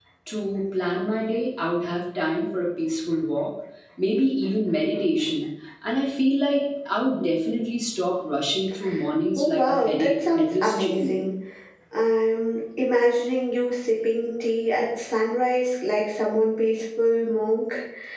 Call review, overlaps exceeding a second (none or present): present